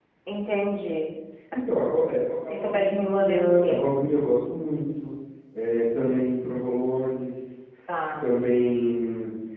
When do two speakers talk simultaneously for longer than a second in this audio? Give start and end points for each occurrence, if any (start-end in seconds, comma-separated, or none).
2.5-3.8